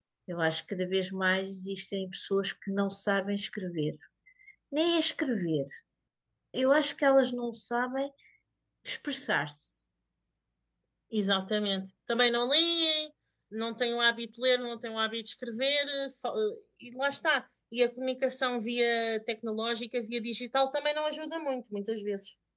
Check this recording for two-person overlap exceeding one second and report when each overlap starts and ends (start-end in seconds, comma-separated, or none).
none